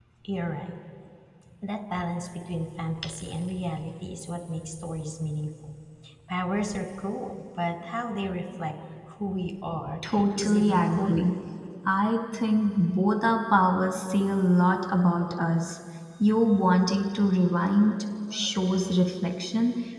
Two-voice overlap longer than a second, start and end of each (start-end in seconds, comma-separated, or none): 10.1-11.3